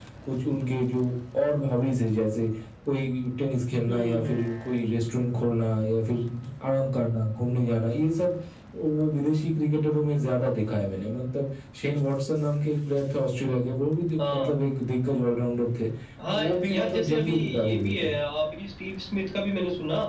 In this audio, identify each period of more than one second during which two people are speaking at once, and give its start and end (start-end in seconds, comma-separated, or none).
16.3-18.2